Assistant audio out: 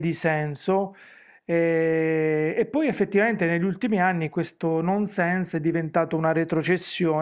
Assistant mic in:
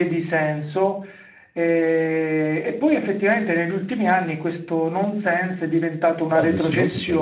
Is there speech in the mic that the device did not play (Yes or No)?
Yes